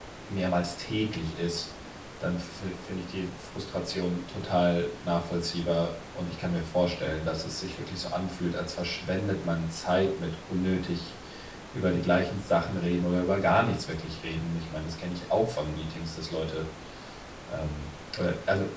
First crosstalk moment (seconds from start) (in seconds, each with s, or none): none